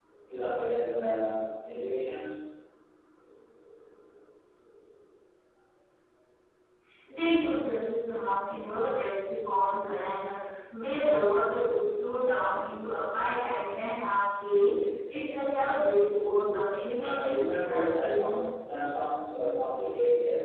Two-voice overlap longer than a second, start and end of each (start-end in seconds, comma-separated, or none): 16.9-18.6